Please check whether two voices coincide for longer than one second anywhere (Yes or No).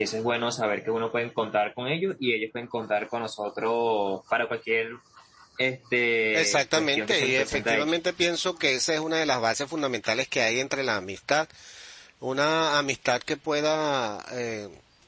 Yes